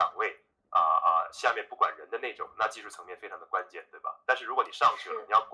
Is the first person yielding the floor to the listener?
No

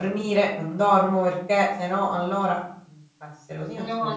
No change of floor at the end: No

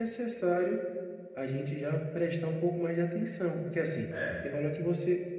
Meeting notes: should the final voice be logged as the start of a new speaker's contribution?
No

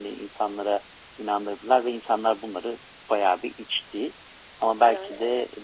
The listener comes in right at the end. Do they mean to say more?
No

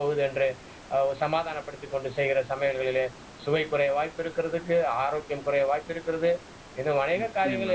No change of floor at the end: Yes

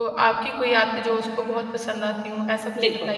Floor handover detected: Yes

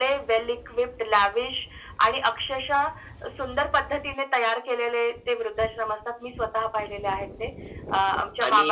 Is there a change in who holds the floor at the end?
Yes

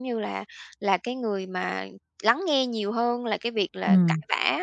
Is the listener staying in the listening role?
Yes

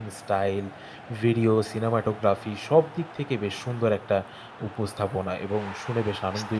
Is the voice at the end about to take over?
Yes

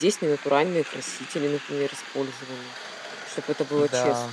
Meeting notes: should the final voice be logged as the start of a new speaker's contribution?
Yes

